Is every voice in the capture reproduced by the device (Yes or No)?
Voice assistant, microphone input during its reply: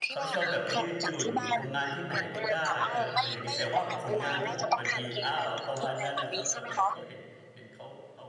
No